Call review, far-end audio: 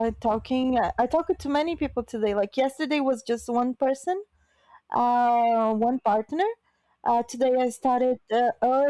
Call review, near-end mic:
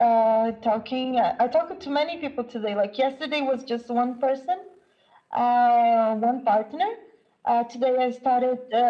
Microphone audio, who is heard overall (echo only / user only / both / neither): echo only